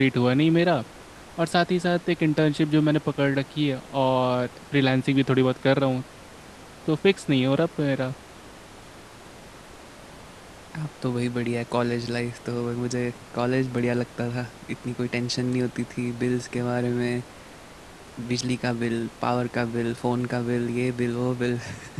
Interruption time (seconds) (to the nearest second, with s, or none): none